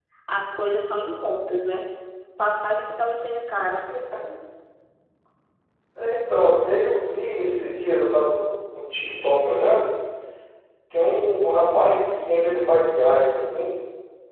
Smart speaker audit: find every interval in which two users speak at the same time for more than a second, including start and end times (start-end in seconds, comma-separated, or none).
none